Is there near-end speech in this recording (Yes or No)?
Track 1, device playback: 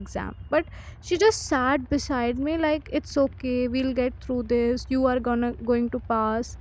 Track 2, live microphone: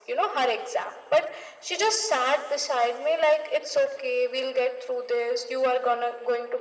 No